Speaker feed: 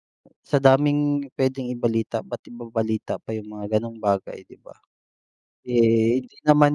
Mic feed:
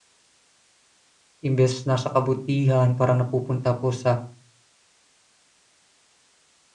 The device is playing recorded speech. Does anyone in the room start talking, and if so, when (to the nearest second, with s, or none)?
1 s